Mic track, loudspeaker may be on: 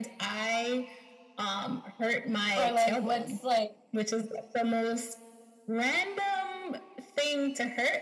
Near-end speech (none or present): present